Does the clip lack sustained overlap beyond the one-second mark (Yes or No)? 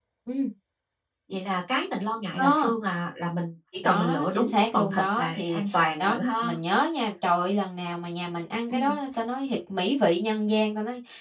No